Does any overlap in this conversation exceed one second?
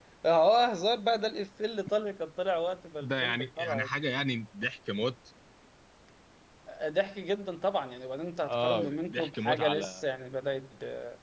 Yes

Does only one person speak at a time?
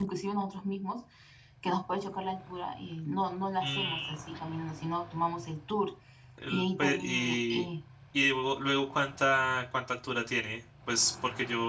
No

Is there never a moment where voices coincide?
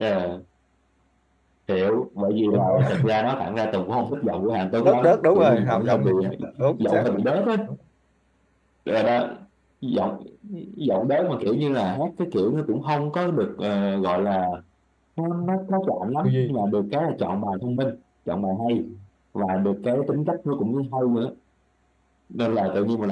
No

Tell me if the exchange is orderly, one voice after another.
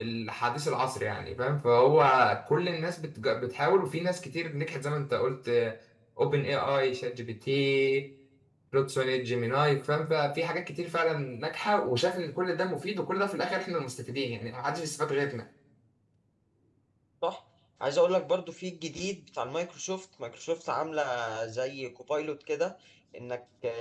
Yes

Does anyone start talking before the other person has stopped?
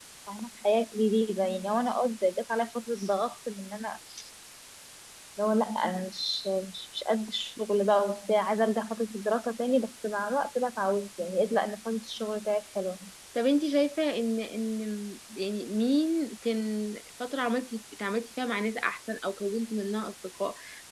No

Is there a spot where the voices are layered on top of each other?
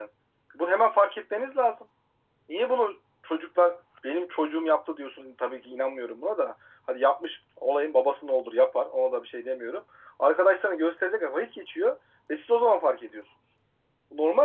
No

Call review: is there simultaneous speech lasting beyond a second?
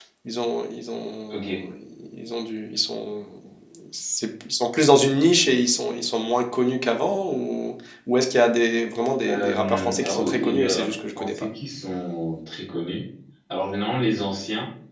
Yes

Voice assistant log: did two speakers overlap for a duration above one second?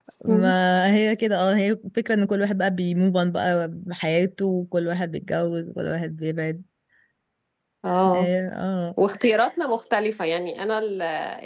No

